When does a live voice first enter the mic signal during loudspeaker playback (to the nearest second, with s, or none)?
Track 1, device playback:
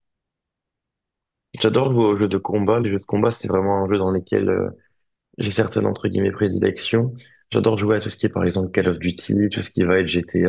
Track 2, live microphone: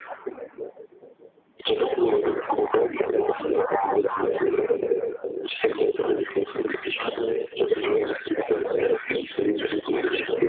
none